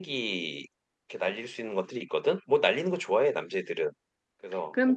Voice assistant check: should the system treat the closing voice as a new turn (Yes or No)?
Yes